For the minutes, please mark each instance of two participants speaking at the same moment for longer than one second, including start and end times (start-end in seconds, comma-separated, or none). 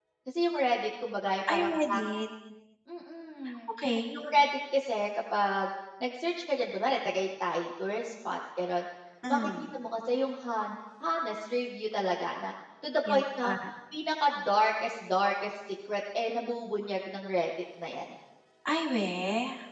none